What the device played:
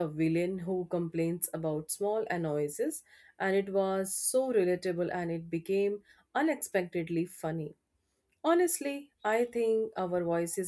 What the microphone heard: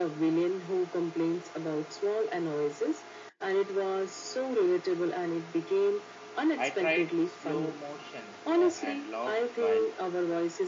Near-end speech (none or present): present